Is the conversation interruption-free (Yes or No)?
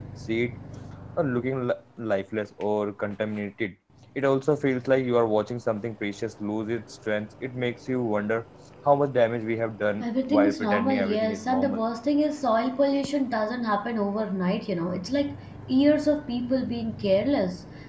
No